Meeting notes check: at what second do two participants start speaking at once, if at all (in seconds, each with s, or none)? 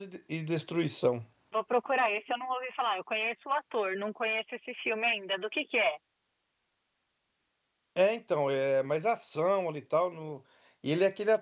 none